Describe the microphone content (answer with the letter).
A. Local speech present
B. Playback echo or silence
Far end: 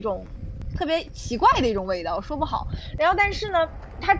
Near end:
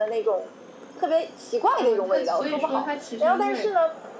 A